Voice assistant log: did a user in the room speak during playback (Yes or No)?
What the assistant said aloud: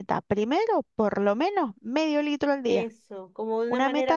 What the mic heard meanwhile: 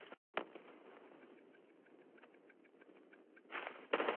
No